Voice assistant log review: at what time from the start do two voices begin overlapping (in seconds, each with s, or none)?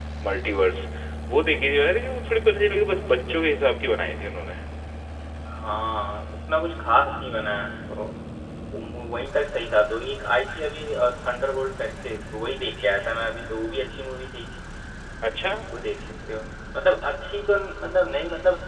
none